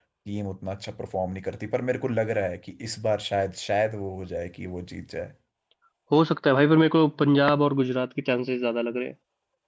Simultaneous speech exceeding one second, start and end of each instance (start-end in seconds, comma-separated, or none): none